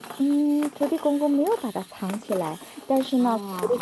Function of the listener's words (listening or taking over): listening